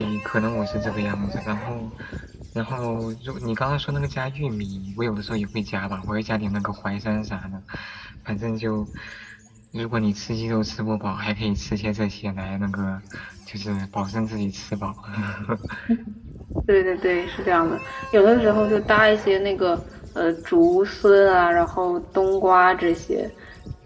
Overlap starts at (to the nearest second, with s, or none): none